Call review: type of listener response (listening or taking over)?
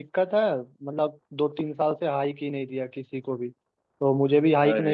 listening